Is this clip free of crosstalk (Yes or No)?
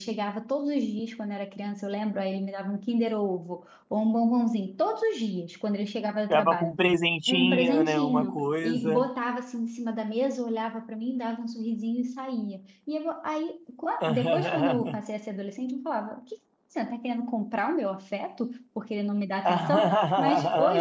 No